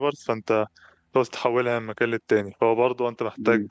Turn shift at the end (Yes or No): No